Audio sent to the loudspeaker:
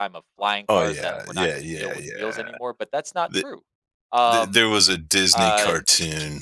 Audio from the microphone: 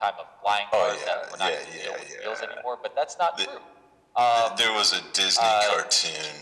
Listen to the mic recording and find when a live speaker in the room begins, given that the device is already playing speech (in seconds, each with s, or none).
none